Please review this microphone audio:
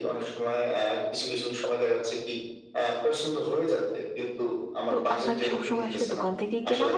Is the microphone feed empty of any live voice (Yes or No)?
No